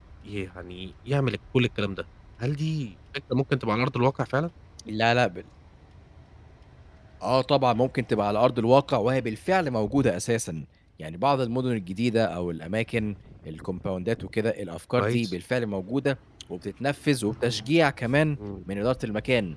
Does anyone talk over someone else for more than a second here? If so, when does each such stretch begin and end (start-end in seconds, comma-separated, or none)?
none